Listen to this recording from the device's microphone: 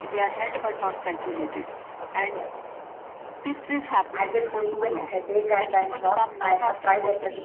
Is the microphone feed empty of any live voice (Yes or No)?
No